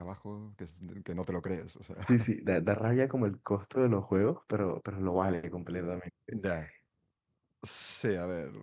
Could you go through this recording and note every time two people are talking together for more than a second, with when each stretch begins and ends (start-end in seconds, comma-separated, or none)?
none